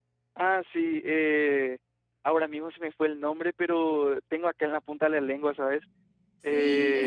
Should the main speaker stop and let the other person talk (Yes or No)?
Yes